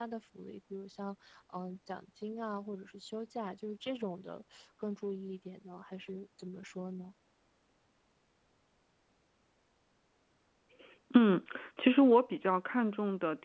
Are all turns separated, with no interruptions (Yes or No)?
Yes